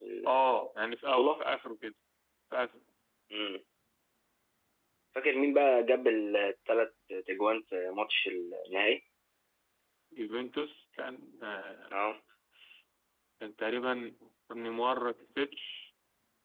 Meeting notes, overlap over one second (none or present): none